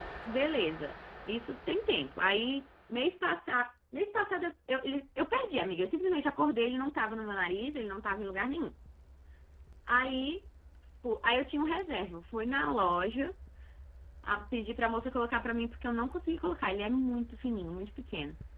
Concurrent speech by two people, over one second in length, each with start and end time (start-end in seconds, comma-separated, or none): none